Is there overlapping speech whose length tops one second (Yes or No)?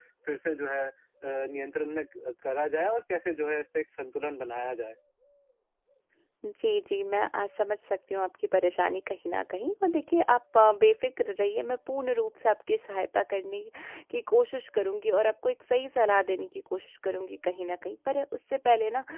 No